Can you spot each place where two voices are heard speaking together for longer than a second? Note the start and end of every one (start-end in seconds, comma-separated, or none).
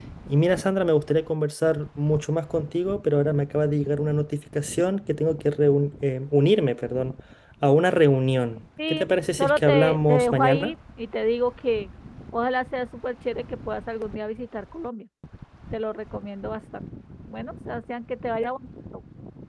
9.4-10.7